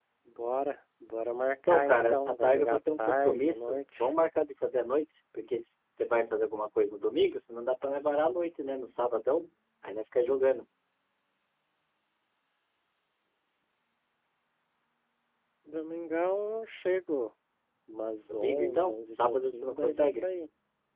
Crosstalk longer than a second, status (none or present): present